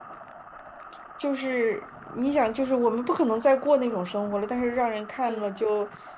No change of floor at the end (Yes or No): Yes